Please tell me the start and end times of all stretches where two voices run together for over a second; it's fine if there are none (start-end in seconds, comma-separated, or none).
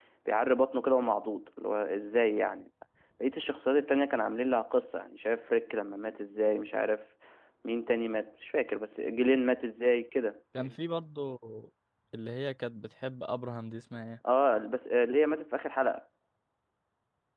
none